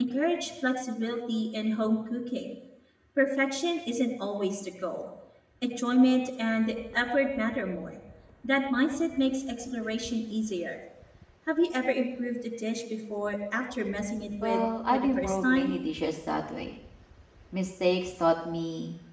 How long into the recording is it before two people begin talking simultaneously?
14 s

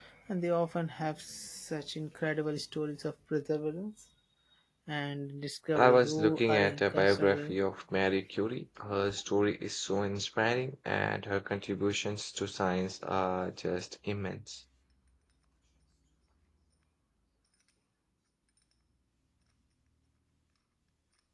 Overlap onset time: 6 s

